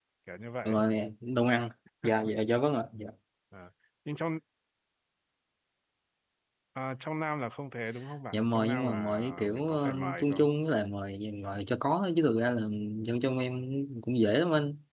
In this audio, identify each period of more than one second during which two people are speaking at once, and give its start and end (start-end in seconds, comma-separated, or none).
8.3-10.5